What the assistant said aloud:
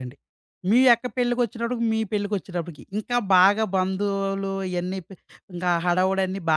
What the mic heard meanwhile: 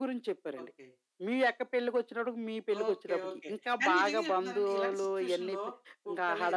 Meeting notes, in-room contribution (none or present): present